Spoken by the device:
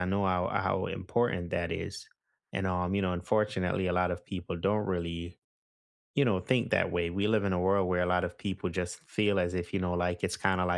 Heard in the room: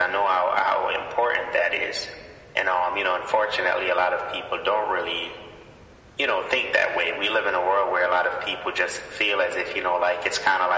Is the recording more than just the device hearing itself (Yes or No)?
No